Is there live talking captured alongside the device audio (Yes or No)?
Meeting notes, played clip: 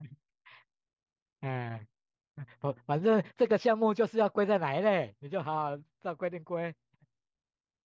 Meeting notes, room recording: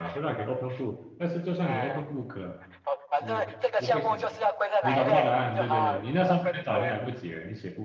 Yes